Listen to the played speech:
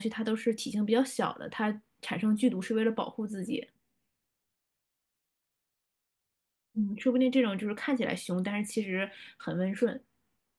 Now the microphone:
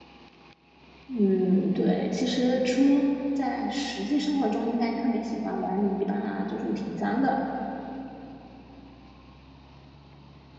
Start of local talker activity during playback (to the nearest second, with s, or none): 1 s